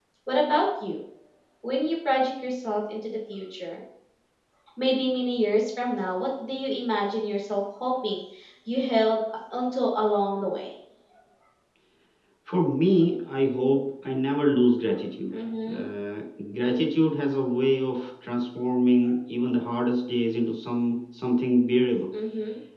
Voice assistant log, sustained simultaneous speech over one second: none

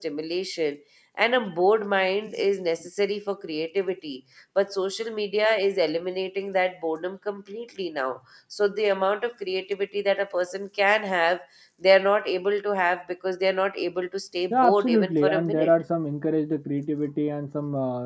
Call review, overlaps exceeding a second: present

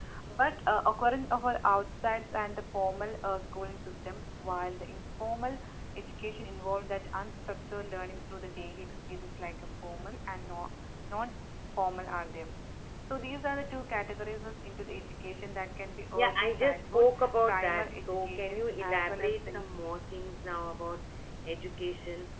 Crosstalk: present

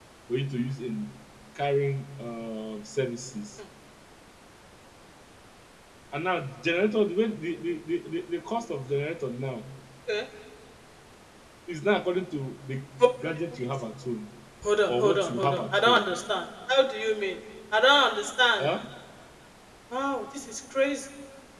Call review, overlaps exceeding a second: present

